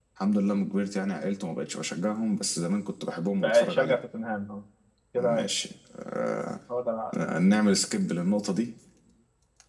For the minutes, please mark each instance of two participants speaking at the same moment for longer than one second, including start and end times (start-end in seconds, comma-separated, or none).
none